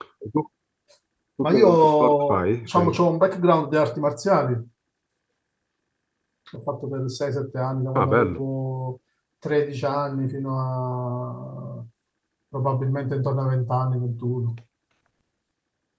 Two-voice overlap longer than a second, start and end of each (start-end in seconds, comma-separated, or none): 1.4-3.0